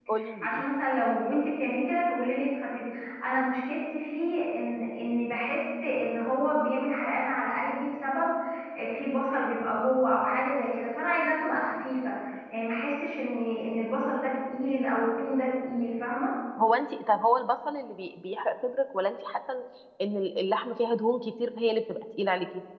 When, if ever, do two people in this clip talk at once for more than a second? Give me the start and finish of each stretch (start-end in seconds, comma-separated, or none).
none